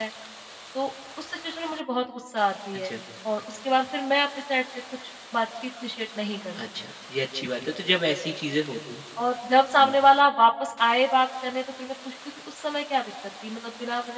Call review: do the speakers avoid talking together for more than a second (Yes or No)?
Yes